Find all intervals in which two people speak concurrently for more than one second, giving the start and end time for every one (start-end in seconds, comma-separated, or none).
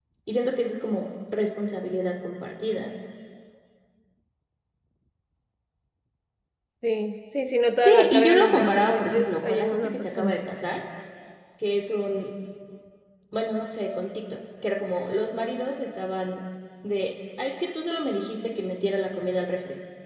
7.8-10.4